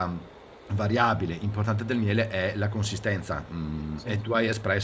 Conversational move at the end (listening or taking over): listening